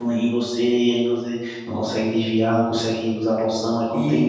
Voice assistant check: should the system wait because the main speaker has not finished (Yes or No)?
Yes